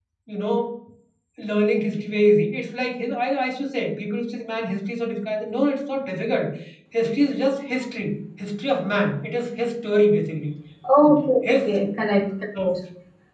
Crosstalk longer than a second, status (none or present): none